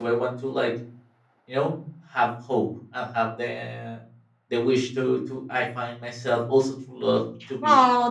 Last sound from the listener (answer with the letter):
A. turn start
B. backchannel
A